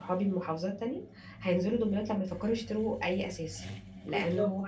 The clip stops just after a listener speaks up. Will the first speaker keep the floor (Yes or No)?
Yes